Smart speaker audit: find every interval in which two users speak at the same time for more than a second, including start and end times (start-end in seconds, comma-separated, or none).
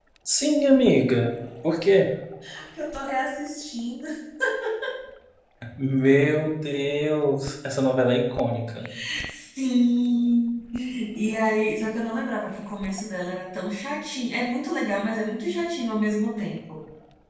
none